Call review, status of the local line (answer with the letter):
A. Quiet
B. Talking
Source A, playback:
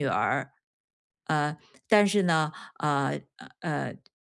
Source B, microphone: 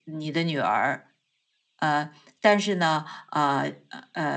A